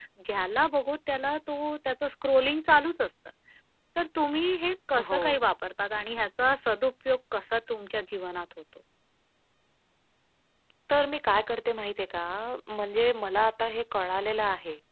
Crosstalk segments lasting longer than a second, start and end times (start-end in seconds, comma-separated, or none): none